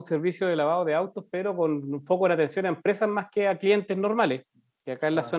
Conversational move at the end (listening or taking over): listening